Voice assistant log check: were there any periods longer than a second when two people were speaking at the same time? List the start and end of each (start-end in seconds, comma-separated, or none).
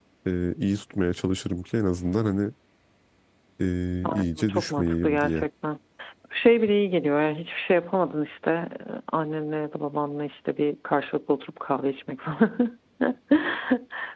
4.0-5.4